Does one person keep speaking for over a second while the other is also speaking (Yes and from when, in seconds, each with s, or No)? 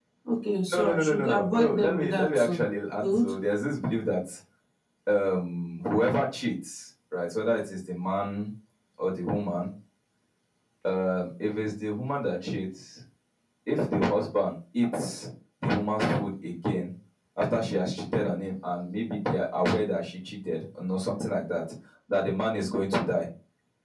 Yes, from 0.7 s